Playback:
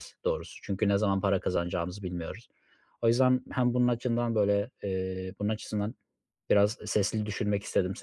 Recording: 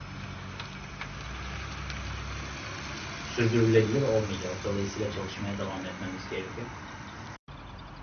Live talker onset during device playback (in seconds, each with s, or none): 3.2 s